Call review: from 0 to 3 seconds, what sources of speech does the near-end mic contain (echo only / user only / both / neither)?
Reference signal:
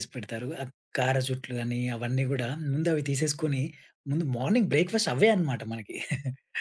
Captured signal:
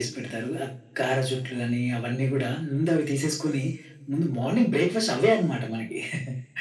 echo only